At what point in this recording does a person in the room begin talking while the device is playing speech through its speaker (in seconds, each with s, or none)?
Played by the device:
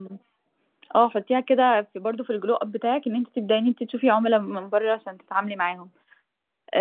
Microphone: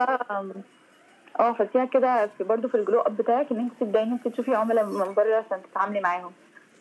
none